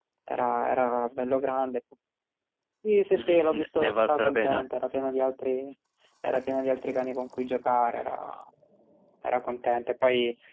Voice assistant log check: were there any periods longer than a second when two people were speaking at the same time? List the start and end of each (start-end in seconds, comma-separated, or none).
3.1-4.6